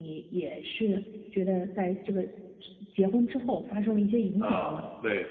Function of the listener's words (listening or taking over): taking over